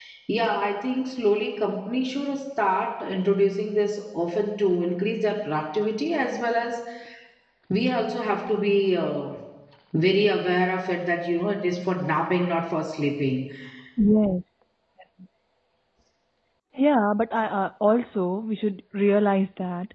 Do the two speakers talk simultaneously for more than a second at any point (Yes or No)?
No